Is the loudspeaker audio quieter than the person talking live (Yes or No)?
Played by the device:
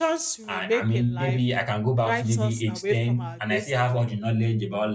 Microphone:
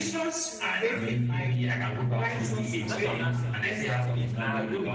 No